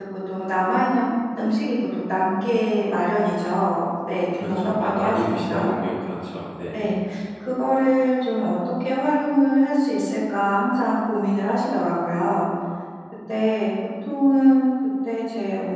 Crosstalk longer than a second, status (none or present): present